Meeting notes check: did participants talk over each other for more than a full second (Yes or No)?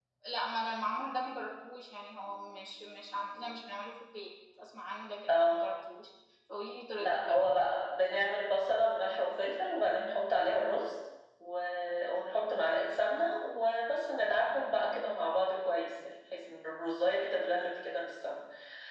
No